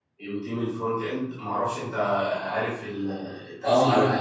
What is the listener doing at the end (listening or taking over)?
taking over